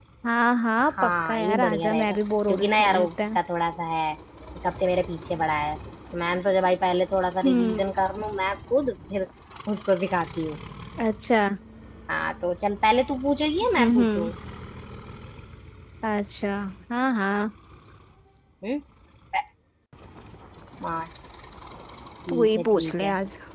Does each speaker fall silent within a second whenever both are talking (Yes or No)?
No